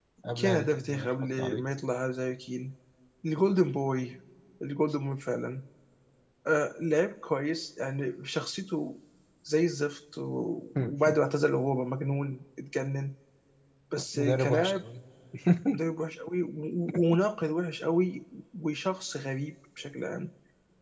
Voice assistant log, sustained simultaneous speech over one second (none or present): present